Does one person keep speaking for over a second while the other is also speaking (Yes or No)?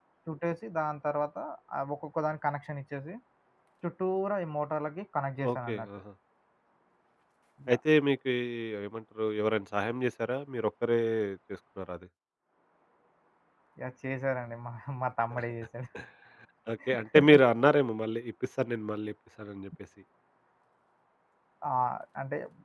No